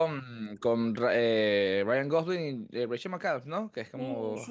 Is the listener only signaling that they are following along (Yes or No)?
No